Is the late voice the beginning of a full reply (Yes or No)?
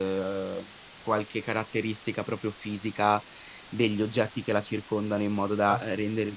No